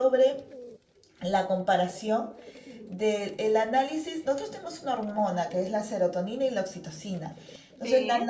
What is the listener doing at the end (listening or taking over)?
listening